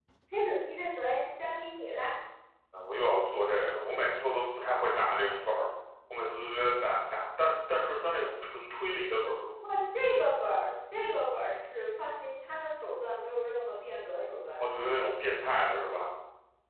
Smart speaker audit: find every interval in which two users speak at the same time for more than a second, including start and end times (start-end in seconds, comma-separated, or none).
none